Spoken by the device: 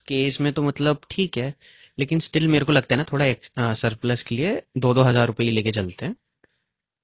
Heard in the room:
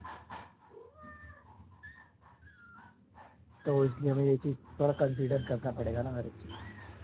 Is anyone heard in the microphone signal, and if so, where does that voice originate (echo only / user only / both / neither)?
user only